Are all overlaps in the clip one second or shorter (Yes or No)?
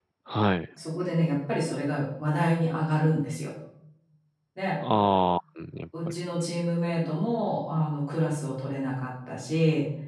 Yes